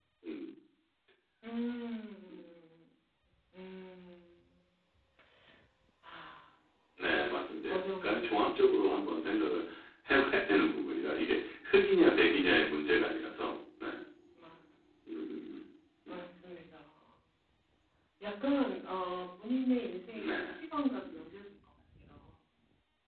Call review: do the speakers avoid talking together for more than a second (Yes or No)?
No